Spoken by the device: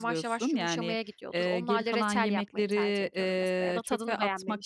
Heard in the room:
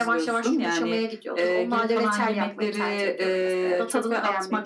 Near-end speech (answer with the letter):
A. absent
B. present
A